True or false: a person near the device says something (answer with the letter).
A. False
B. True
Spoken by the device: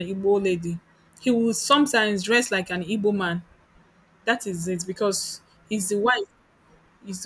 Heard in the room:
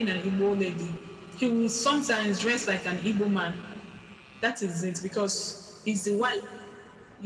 A